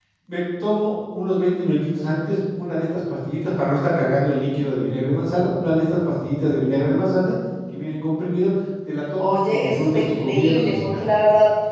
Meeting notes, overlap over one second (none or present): present